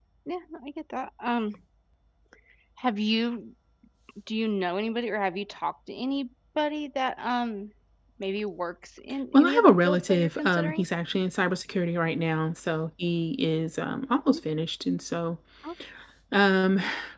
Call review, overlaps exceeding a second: present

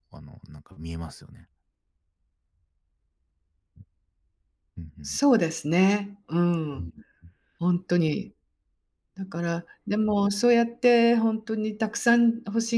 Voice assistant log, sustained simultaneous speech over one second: none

